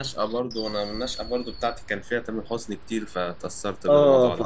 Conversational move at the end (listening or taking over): taking over